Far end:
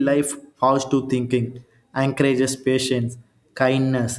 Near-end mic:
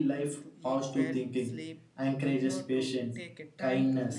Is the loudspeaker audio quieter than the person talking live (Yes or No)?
No